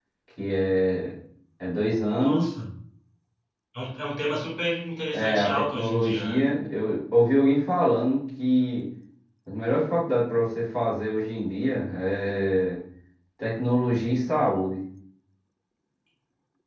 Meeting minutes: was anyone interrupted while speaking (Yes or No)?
Yes